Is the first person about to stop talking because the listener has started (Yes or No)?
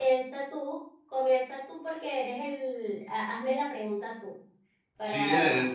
Yes